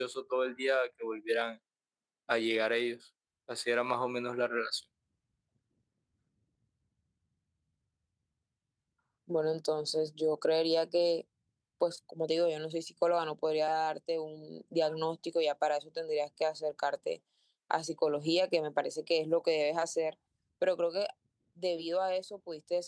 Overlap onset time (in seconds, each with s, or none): none